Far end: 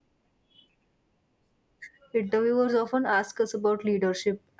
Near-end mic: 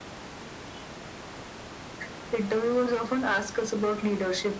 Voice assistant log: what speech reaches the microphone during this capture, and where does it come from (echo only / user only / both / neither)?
echo only